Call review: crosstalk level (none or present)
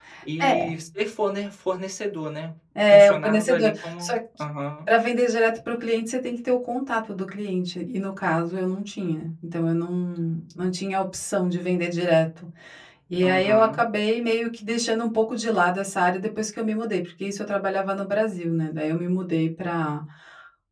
present